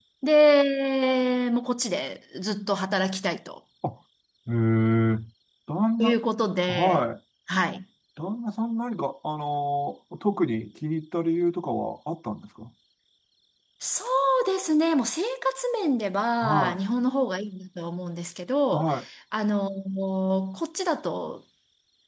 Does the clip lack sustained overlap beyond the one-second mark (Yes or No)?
Yes